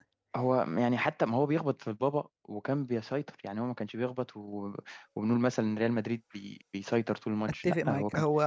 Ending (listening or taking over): taking over